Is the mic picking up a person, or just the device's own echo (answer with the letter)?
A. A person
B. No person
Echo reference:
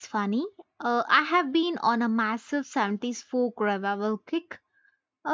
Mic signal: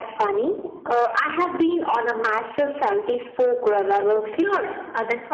A